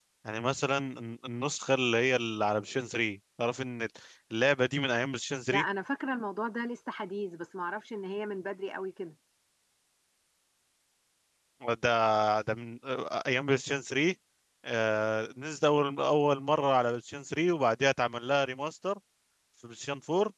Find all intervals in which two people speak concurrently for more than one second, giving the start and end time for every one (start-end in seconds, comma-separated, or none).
none